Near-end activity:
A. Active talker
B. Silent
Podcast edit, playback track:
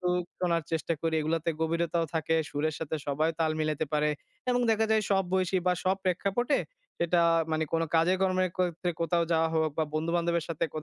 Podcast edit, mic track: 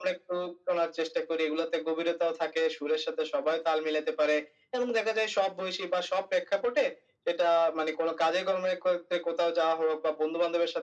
B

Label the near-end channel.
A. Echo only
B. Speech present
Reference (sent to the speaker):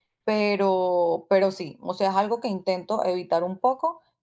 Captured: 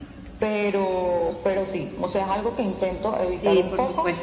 B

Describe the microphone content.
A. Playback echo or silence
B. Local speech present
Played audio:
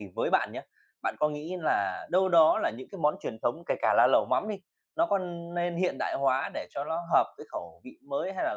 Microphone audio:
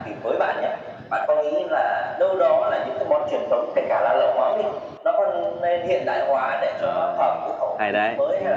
B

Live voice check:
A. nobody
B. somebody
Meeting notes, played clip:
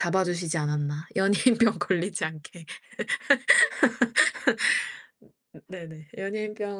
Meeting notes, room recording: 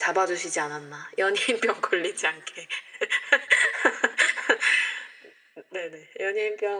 A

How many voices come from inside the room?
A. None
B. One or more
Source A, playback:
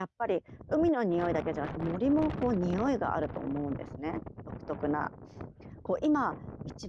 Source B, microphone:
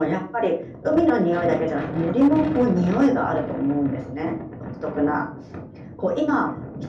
A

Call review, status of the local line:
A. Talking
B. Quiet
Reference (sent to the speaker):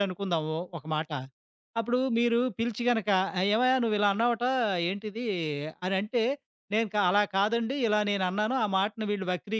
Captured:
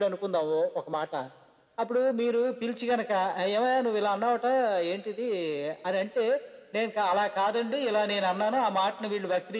B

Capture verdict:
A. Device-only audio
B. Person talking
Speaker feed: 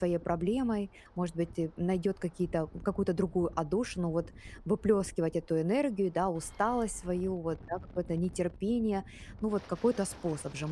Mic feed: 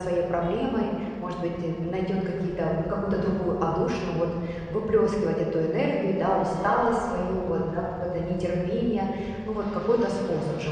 A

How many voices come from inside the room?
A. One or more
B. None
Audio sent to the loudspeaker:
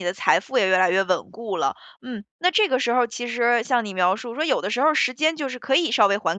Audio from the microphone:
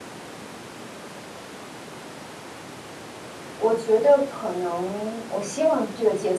A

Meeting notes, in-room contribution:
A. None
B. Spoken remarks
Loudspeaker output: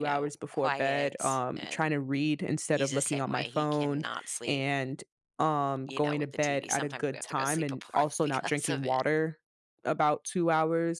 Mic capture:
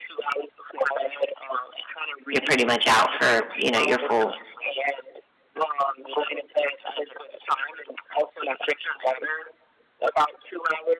B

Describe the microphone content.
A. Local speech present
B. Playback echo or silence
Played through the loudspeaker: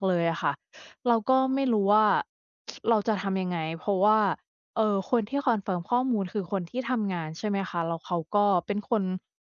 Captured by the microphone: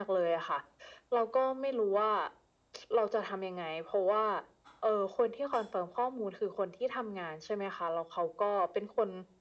B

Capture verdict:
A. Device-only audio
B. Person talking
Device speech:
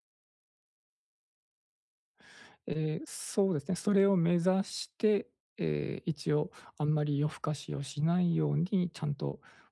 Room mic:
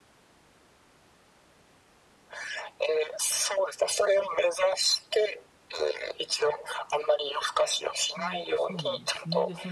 B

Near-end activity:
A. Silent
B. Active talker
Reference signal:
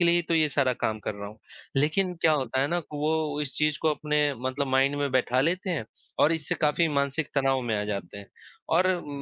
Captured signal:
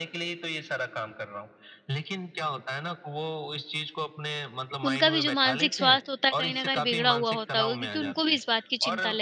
B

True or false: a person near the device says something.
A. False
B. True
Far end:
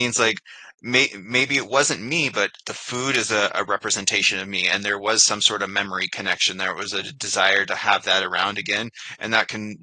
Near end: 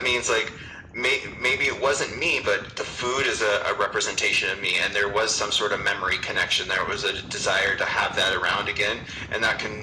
A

